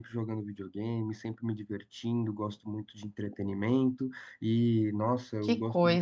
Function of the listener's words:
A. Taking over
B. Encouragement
B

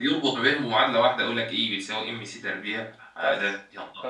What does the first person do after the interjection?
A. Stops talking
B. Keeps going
A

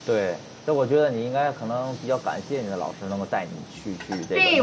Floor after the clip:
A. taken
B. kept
A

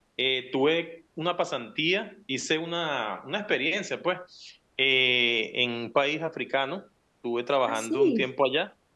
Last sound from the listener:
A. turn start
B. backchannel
B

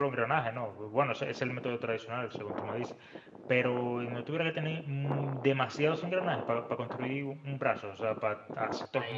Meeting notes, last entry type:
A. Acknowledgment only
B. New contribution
B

